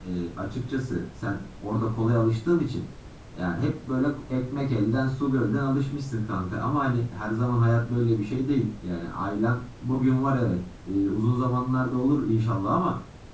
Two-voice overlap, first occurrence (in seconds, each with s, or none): none